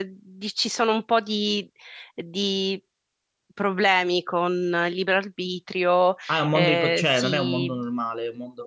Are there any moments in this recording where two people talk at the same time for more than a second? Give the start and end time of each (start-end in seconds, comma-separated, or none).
6.5-7.8